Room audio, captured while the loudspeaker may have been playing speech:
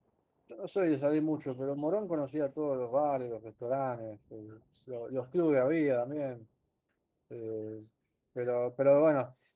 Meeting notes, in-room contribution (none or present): present